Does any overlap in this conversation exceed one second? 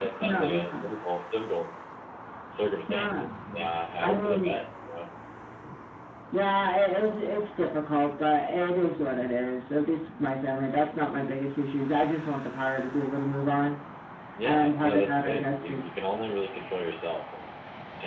Yes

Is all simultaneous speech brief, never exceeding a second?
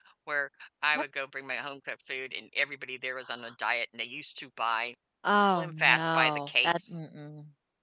No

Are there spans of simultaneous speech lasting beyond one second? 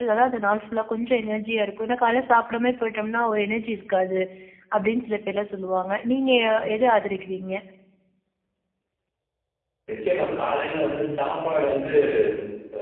No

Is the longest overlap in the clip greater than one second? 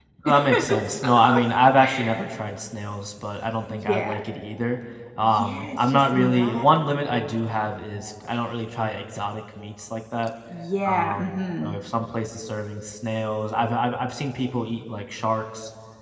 Yes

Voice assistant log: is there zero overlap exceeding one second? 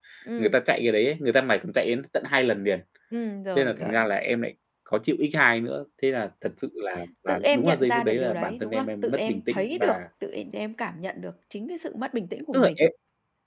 No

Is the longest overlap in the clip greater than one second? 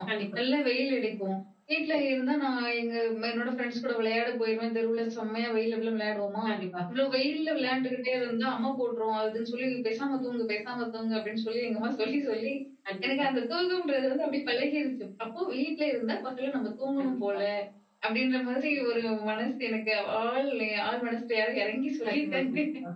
No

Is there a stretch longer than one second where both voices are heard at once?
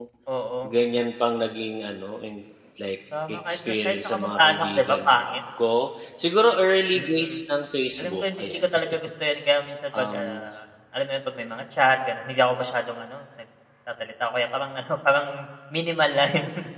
Yes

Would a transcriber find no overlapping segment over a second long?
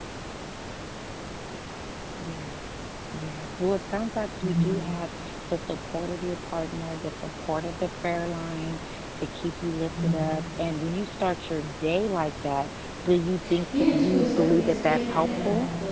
No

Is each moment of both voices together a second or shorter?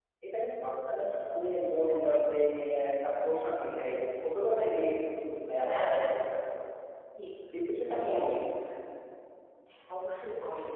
Yes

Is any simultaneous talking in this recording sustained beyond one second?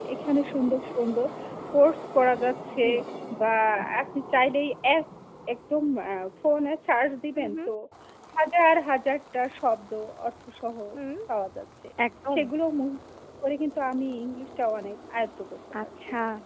No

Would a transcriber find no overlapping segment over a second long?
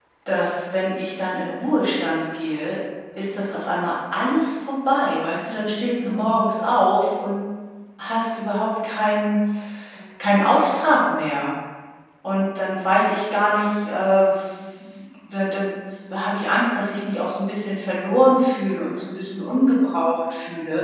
Yes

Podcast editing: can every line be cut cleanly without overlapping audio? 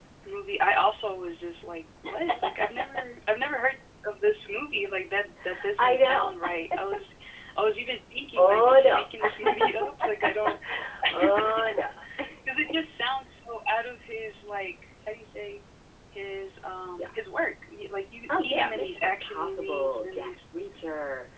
No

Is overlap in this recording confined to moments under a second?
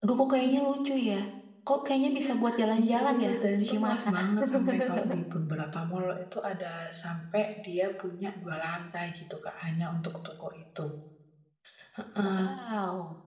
No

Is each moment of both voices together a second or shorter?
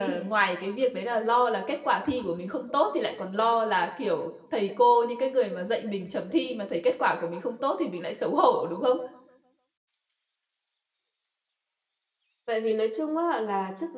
Yes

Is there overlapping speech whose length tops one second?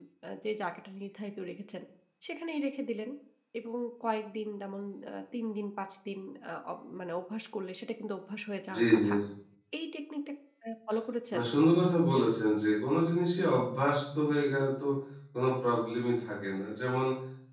No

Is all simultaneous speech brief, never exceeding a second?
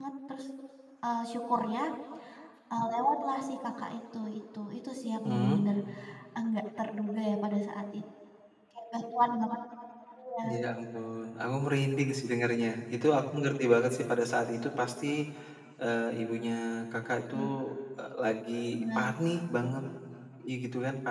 Yes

